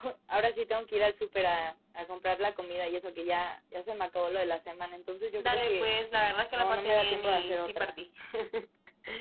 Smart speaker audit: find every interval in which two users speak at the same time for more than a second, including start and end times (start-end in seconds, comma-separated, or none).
6.5-8.0